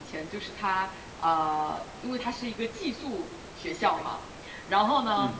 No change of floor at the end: Yes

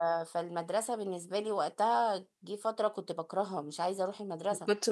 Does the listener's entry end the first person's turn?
Yes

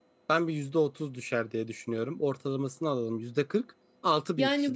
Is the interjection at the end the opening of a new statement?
Yes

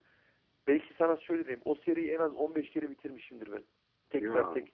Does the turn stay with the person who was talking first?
Yes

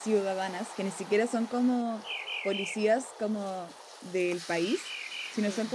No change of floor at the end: Yes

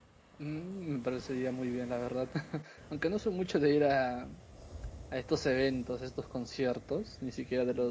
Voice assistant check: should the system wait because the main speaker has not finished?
Yes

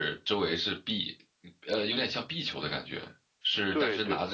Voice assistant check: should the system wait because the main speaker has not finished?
Yes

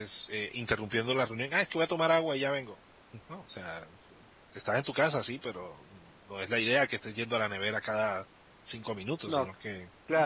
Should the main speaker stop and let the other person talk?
Yes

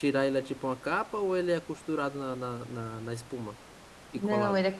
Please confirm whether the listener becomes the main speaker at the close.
Yes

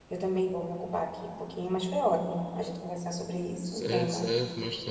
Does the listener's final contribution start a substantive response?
Yes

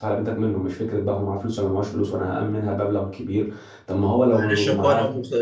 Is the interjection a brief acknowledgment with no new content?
No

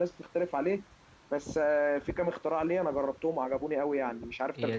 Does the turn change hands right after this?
Yes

